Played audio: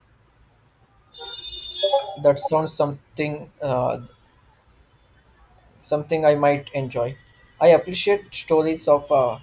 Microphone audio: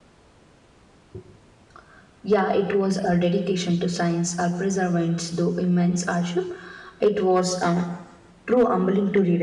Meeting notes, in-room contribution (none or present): present